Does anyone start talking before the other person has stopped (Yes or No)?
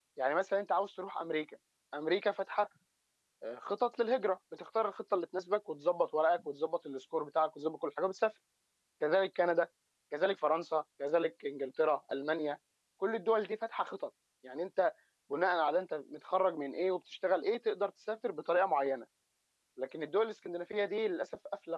No